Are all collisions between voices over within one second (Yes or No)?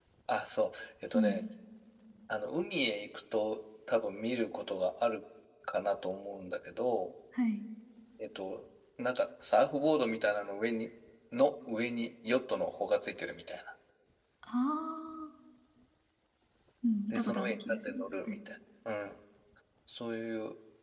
No